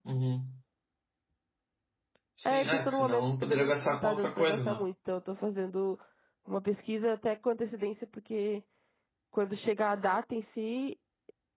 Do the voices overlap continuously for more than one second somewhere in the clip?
Yes, from 2.4 s

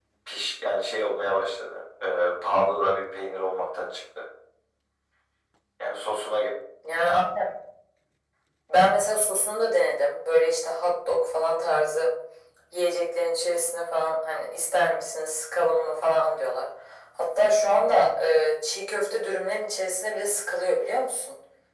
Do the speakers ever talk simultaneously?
No

